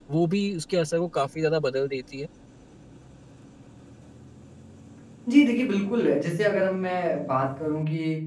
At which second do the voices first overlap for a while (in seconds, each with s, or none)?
none